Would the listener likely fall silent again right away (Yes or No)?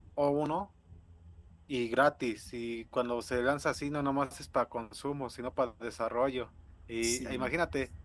Yes